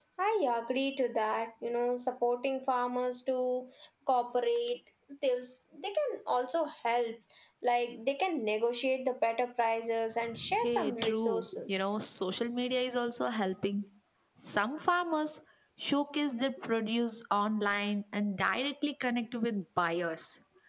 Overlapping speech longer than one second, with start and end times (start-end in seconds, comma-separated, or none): 10.6-11.9